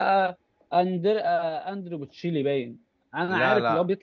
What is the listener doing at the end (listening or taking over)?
listening